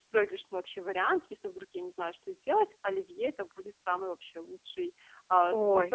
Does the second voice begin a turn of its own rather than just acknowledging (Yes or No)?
No